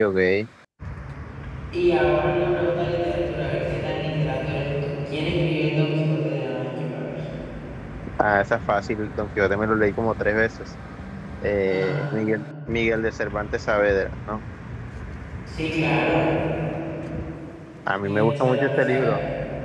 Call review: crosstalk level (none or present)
present